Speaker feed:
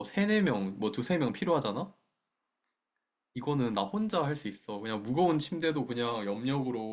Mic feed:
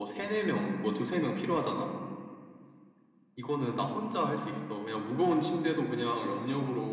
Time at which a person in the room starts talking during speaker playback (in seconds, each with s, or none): none